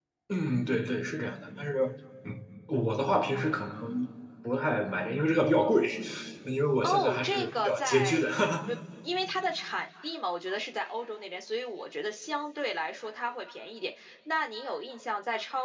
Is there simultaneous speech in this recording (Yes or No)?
Yes